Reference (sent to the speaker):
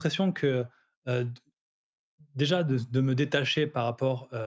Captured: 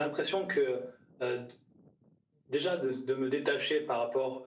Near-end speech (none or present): none